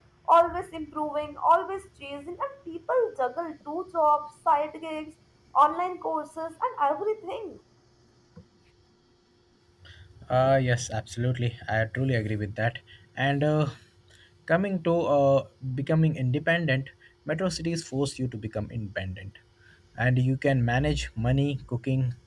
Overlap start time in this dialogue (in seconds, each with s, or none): none